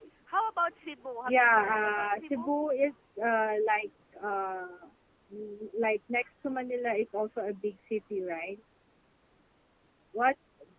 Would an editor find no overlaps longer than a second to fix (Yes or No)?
No